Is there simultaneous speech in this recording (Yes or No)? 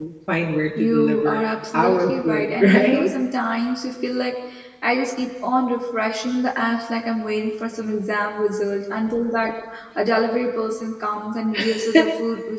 Yes